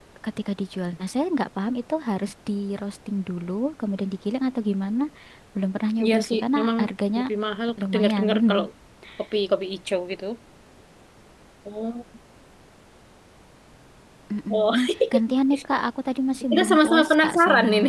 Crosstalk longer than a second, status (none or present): present